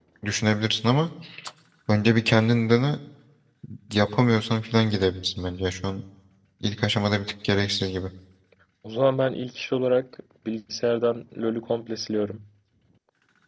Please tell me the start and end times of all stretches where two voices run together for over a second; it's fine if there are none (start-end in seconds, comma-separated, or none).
none